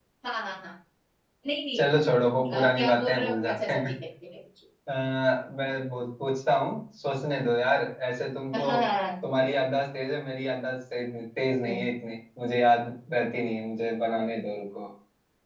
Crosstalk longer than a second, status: present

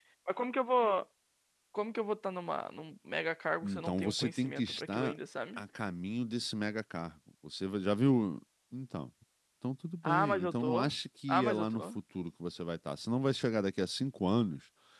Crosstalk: present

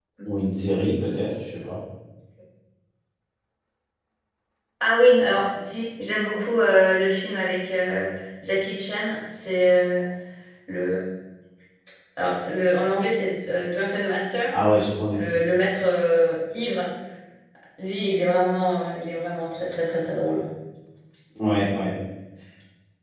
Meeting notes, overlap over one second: none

